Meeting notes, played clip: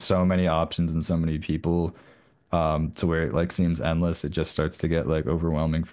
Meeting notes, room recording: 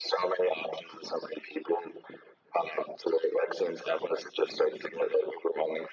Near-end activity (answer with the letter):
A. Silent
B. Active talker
A